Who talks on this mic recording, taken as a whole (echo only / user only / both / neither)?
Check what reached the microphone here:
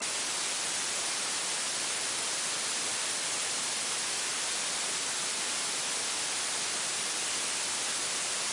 neither